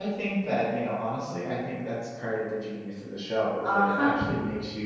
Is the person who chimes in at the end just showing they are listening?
Yes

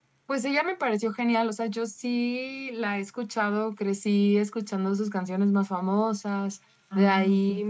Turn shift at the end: No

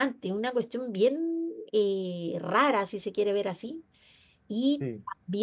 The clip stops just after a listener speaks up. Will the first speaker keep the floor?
Yes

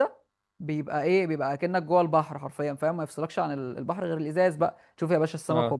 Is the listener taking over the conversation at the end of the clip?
No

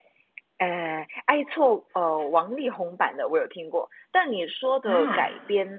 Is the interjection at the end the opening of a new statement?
No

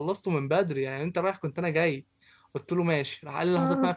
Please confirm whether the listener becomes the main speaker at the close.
No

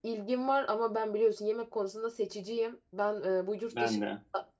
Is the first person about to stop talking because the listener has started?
No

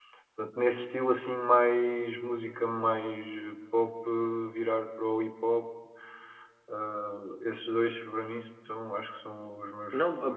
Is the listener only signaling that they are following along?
No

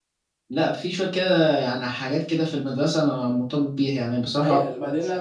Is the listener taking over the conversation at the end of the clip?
Yes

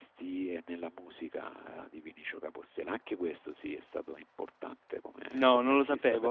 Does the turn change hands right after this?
Yes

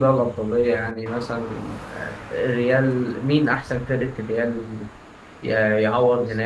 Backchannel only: Yes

